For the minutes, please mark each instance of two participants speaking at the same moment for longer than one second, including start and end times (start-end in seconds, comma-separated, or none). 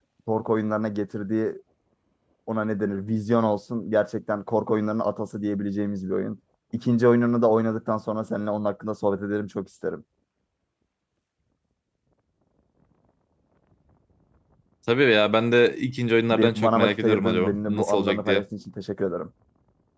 16.3-18.4